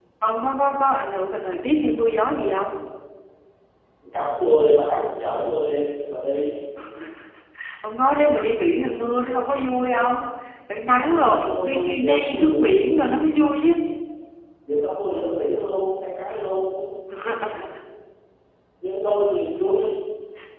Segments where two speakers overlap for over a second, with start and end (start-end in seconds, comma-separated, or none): 11.1-12.6